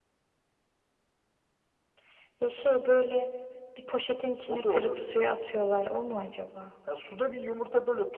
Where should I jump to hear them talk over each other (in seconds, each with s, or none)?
4.5 s